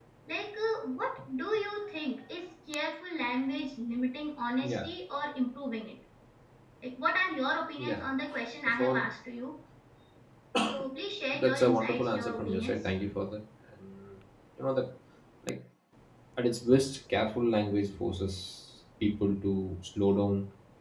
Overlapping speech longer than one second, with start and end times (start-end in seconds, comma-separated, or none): 11.3-12.8